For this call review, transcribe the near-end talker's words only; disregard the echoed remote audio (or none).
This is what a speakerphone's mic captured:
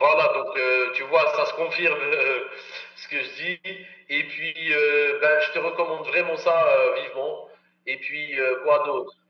none